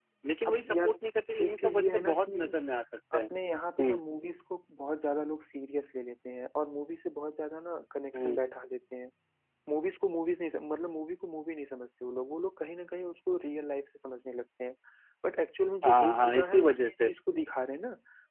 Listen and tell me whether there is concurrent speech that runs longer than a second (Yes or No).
Yes